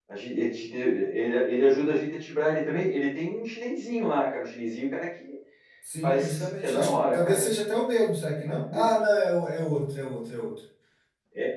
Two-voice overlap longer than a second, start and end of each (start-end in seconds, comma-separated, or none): 6.0-7.5